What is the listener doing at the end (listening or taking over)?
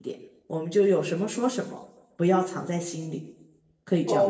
taking over